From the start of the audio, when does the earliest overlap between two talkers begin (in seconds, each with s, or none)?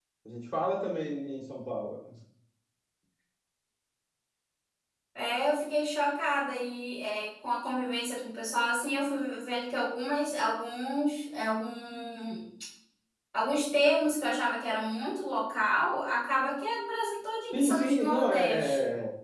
17.5 s